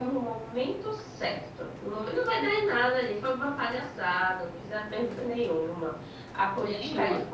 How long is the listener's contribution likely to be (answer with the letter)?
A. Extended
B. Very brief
B